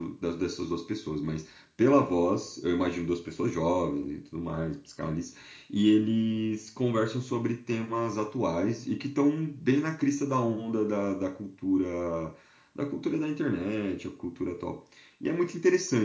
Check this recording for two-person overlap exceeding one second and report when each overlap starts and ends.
none

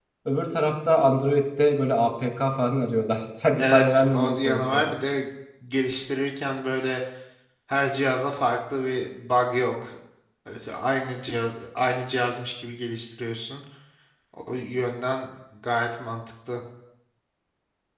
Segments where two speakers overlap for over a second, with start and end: 3.6-4.9

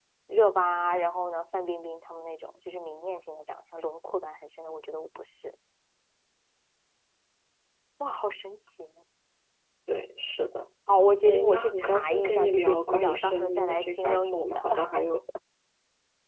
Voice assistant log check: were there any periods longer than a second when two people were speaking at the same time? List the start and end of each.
11.2-14.6

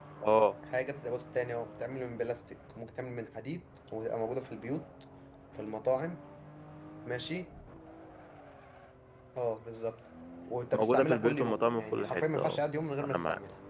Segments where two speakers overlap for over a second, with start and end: 10.7-12.6

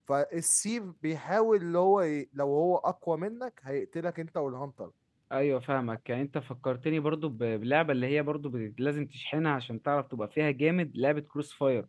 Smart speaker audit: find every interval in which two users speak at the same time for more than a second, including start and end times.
none

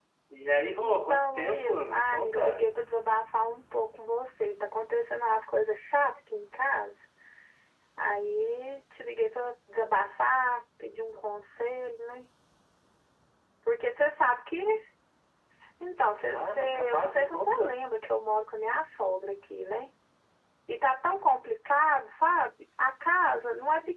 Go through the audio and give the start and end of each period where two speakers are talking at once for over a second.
0.8-2.7, 16.3-17.7

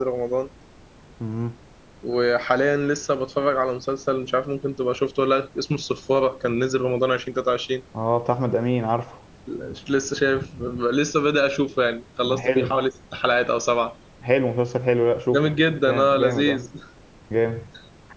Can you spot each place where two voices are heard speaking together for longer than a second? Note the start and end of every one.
15.3-16.6

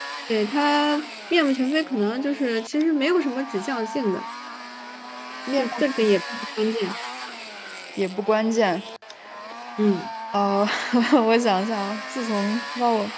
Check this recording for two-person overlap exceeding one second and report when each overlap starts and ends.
none

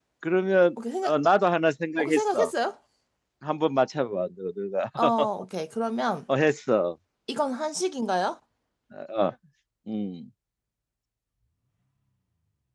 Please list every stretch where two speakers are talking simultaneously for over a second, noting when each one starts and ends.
none

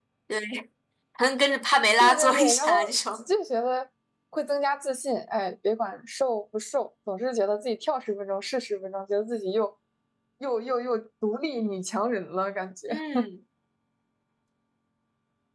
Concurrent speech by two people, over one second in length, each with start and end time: 2.0-3.2

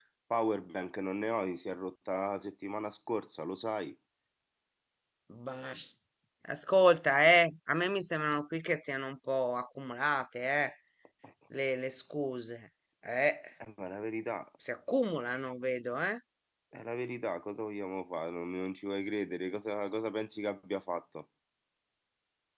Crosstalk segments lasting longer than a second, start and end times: none

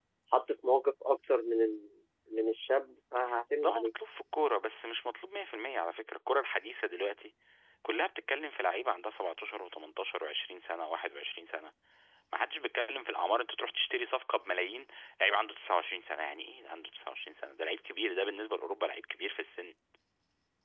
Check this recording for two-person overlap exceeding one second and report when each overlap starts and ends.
none

